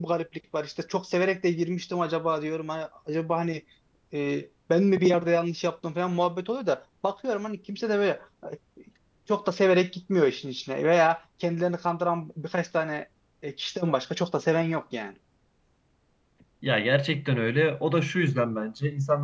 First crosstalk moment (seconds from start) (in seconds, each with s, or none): none